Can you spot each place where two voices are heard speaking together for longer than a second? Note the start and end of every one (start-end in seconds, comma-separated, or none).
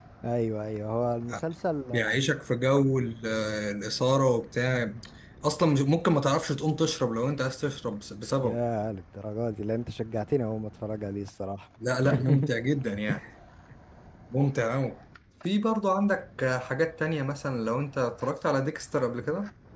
none